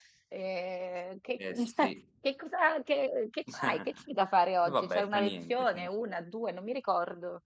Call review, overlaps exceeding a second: present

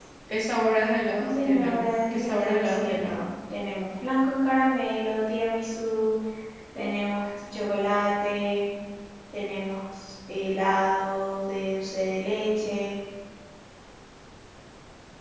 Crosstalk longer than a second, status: present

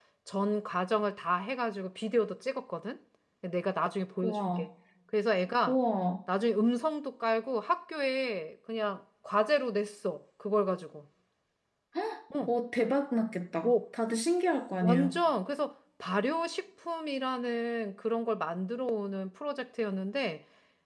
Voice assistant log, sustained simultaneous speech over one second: none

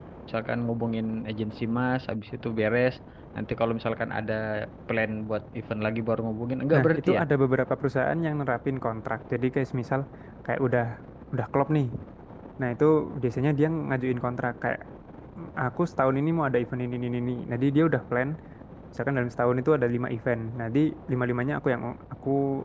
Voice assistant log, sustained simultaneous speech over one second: none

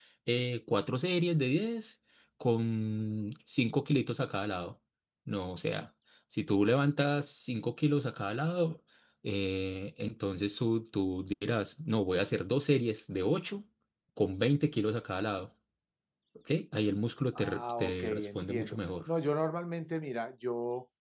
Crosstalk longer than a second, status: present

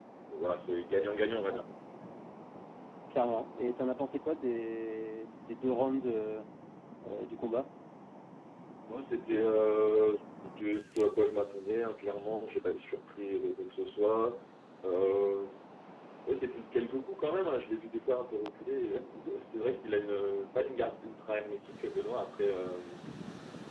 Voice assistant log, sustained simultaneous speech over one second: none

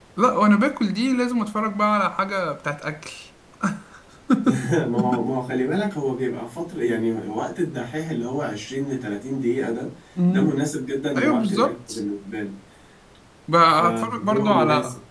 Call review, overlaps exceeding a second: present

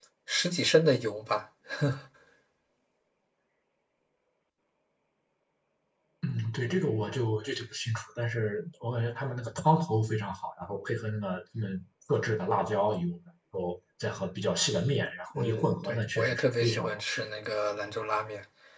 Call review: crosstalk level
present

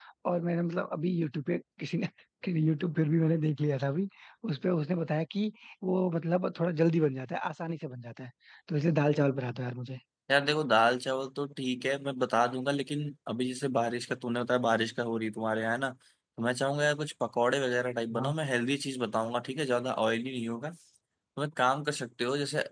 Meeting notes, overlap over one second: none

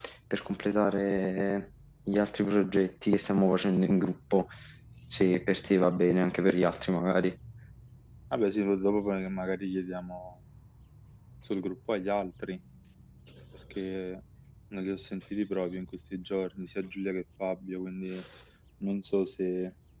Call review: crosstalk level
none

